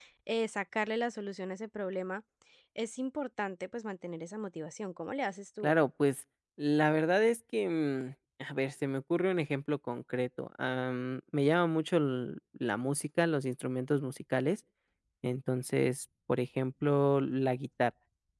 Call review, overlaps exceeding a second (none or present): none